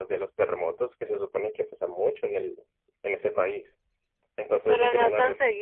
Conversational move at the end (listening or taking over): taking over